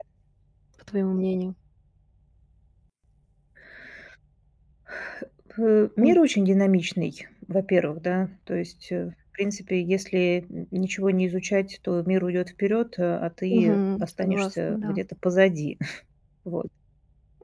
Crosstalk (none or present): present